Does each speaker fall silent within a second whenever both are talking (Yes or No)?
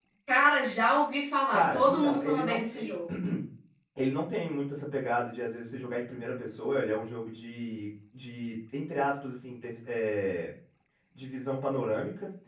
No